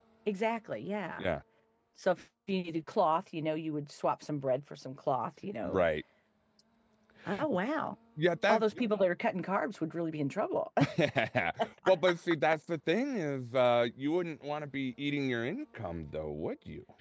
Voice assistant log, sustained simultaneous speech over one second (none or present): none